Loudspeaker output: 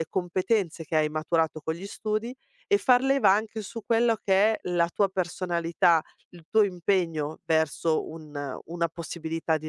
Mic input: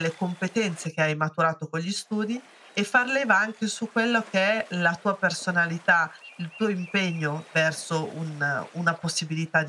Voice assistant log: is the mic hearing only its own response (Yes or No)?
Yes